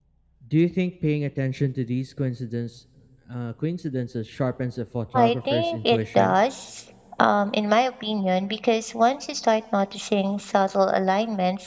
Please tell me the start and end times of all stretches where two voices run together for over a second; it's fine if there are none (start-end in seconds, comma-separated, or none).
5.1-6.4